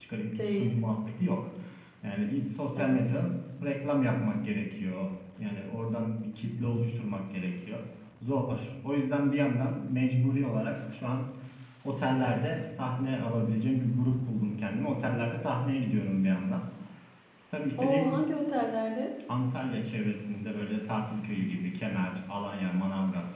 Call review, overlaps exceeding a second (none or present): none